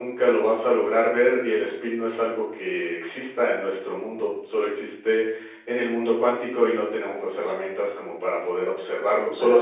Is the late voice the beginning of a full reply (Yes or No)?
No